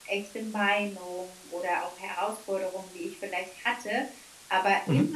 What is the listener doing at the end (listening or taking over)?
listening